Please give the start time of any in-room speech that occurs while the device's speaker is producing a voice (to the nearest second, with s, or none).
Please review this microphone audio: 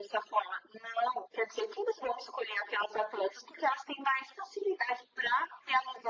none